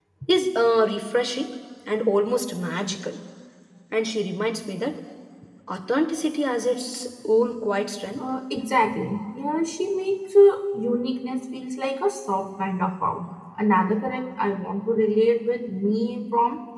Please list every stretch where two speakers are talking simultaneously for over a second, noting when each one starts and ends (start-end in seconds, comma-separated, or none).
none